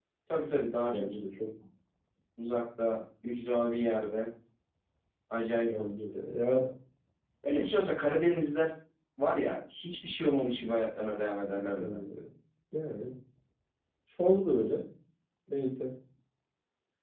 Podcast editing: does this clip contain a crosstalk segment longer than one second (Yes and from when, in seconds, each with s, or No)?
No